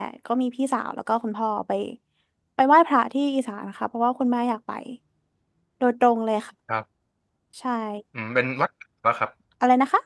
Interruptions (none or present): none